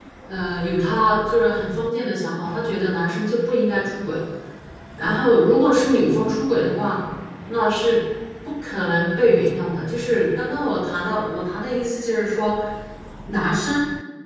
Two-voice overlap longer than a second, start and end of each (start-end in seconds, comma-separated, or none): none